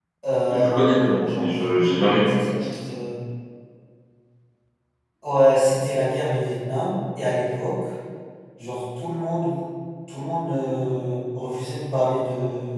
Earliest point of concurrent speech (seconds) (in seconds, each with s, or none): 0.5 s